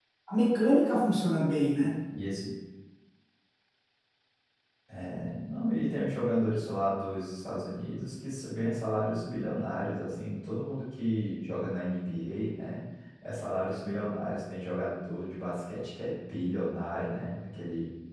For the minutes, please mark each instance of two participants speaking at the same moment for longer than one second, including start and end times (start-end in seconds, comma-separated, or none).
none